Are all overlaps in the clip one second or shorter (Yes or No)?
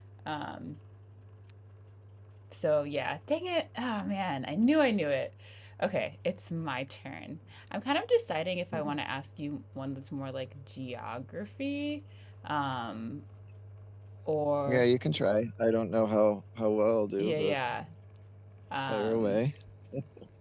Yes